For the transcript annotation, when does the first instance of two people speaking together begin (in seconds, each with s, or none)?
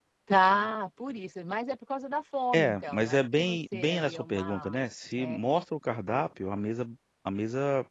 2.5 s